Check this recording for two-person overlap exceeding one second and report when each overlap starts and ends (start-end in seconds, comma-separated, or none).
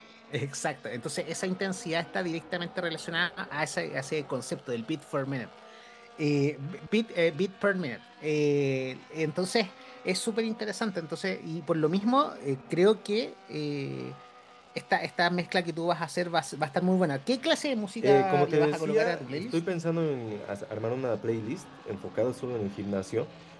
18.0-19.6